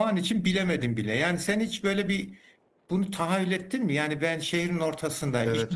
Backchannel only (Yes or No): Yes